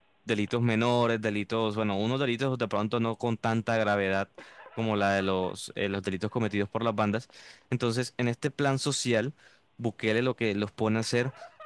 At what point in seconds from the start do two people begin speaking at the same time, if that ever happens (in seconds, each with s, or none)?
none